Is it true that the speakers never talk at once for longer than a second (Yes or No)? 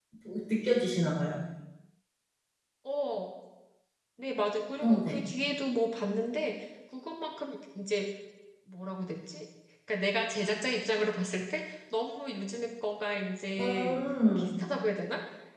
Yes